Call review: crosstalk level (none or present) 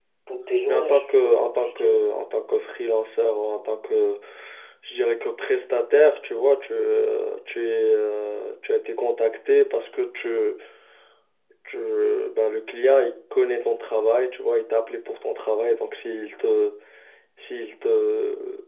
present